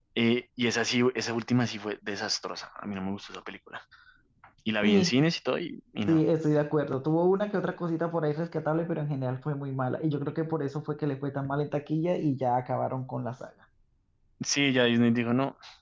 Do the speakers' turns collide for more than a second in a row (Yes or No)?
No